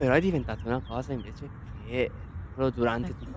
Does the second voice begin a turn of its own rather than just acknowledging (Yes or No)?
No